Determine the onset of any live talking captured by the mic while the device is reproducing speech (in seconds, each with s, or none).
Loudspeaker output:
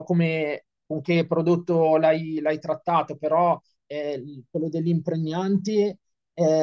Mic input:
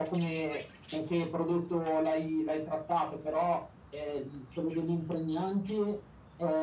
none